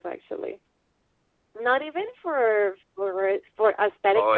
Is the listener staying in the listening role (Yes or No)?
Yes